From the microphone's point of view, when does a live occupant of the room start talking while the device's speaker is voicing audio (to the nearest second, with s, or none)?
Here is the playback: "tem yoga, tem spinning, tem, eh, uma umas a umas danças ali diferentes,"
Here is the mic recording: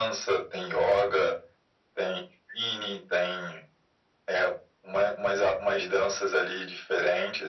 none